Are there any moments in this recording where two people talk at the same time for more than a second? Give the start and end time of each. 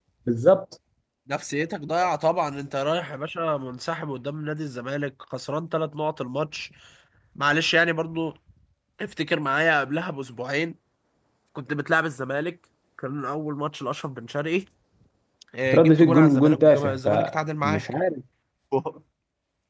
15.7-17.8

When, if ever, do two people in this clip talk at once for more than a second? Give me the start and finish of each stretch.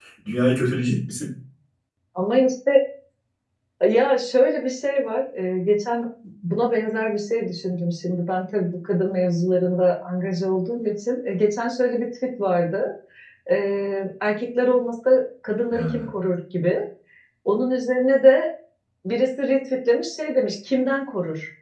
none

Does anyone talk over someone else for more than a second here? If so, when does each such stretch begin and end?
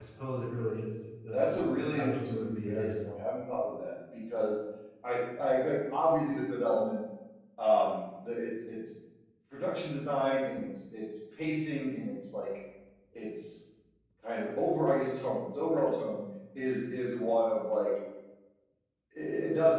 1.3-3.0

